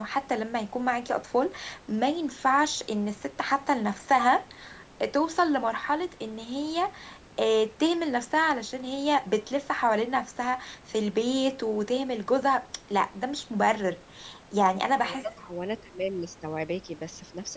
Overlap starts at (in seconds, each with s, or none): none